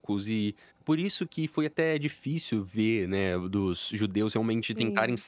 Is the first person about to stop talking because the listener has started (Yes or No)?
No